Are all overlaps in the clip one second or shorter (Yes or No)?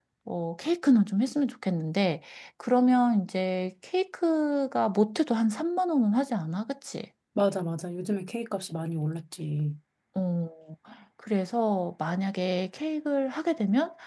Yes